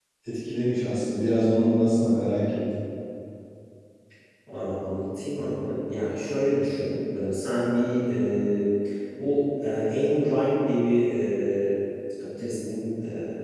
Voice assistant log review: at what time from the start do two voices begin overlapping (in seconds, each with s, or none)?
none